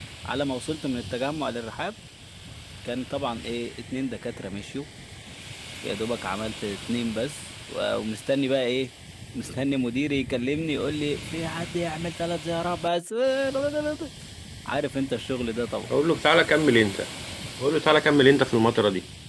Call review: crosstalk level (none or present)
none